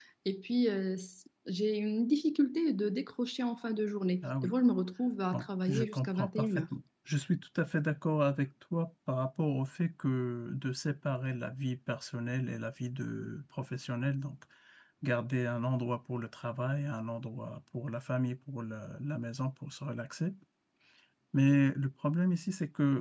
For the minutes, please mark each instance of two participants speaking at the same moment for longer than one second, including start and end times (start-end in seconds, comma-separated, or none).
5.3-6.6